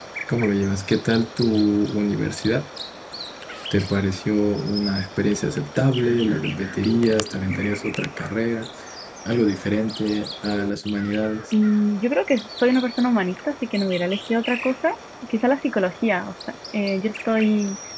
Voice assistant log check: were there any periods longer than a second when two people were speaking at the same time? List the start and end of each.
none

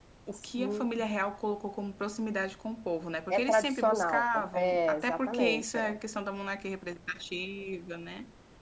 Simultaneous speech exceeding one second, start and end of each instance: 3.3-6.0

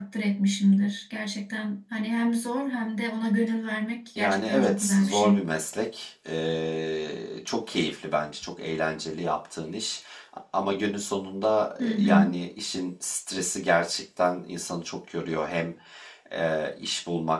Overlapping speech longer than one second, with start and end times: 4.2-5.4

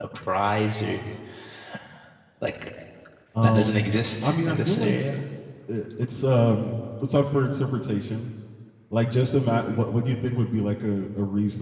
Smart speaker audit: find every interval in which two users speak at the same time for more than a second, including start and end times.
3.4-5.0

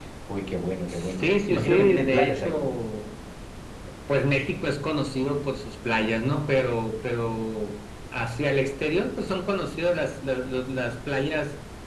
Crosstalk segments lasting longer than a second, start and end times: 0.9-2.8

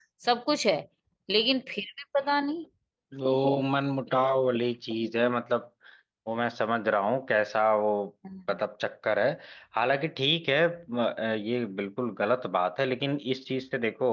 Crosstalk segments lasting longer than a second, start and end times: none

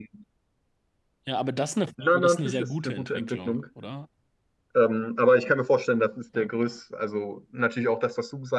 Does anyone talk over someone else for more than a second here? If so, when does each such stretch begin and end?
2.0-3.6

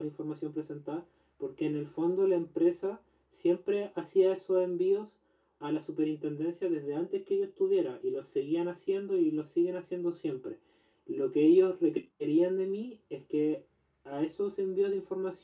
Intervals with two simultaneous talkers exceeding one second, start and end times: none

